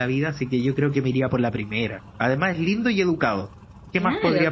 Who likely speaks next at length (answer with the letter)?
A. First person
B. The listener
B